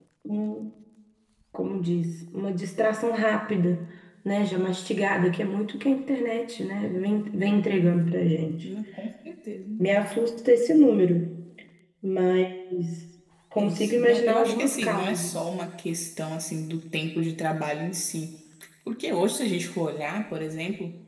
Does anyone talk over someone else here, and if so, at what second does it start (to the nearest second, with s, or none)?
14 s